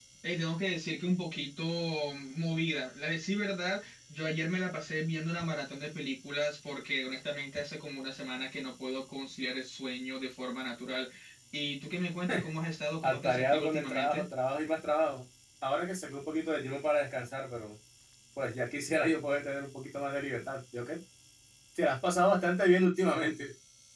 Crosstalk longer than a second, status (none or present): present